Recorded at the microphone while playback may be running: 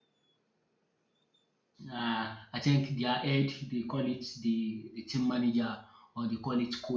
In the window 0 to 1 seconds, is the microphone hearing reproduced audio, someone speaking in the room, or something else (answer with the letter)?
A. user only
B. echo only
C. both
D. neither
D